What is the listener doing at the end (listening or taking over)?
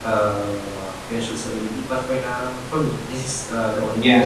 taking over